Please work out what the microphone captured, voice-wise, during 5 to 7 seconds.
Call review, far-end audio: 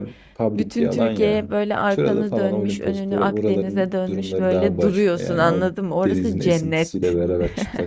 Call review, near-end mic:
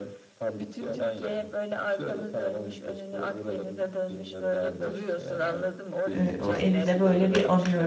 both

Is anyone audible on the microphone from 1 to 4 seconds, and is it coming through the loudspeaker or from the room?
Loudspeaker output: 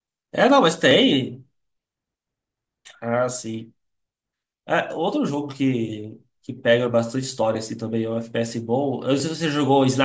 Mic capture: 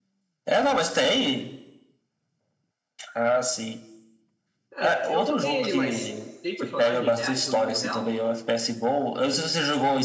echo only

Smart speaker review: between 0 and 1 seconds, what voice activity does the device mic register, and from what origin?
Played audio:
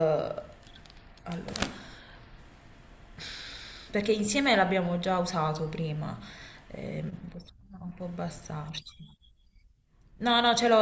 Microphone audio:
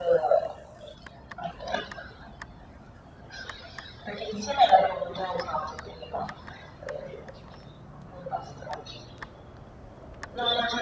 echo only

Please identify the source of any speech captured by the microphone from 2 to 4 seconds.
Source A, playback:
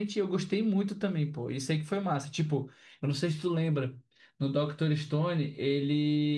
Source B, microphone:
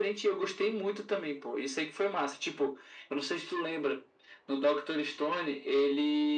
echo only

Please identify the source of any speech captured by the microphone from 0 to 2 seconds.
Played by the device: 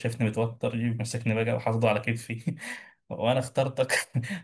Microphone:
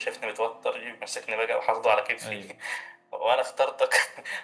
echo only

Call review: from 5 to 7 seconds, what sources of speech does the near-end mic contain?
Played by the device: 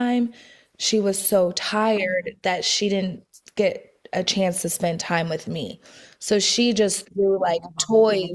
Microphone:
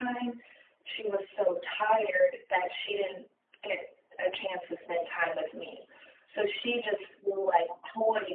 echo only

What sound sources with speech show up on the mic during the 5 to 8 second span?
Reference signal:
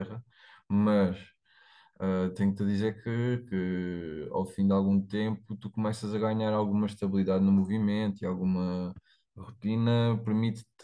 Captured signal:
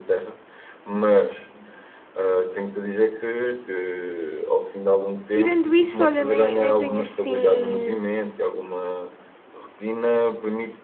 both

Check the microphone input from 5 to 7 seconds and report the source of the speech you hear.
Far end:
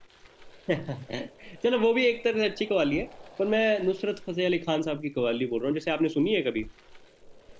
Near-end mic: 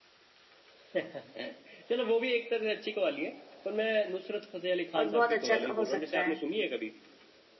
both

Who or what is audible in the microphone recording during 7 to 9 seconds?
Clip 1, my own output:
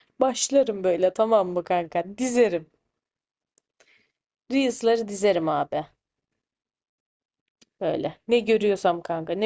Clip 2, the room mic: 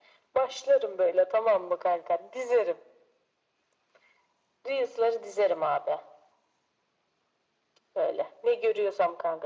echo only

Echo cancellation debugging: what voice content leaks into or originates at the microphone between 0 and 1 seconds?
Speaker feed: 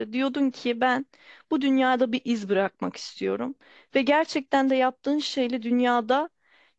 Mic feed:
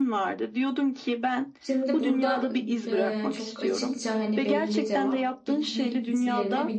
echo only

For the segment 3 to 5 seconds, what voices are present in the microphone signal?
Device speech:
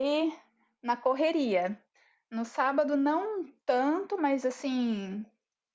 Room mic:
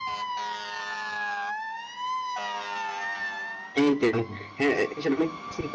user only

